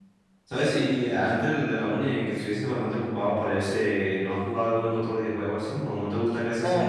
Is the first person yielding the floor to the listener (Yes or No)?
Yes